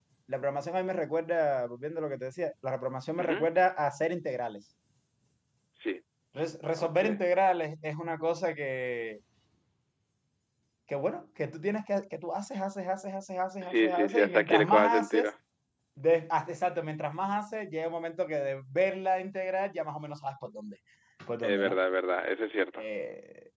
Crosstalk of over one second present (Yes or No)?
Yes